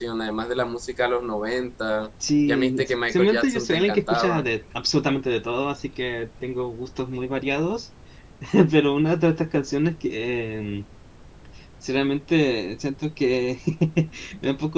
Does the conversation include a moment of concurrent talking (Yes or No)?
Yes